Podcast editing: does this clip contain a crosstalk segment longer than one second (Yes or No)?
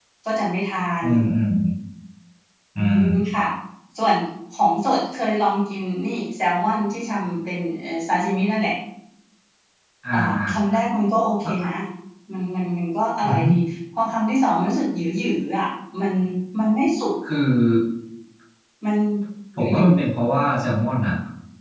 No